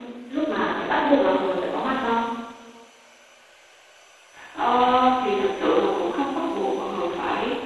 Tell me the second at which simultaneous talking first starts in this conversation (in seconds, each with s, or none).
none